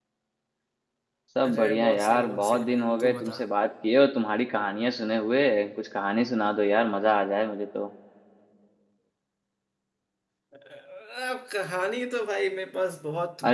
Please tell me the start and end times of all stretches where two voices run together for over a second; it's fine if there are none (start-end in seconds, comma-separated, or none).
1.4-3.4